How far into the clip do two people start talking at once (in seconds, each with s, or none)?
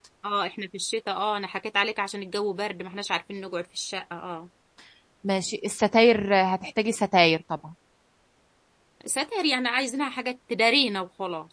none